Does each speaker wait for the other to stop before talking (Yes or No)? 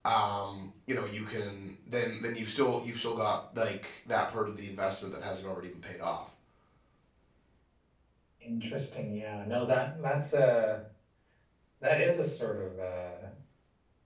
Yes